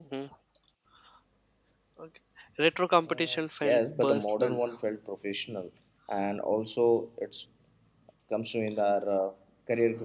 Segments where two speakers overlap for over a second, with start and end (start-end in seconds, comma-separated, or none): 3.1-4.6